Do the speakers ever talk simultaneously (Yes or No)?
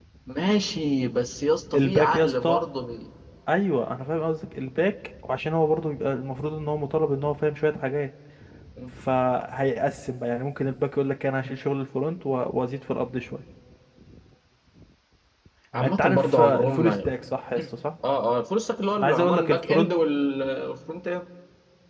Yes